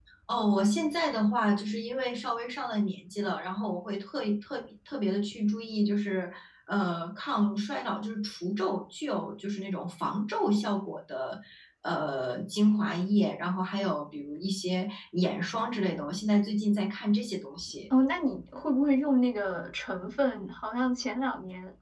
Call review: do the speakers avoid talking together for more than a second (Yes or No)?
Yes